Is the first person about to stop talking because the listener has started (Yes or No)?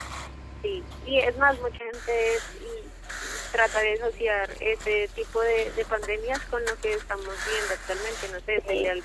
No